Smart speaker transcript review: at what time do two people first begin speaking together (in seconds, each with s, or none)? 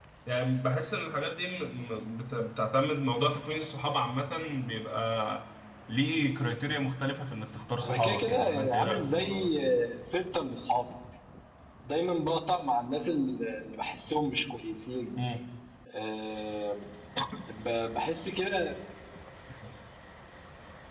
7.8 s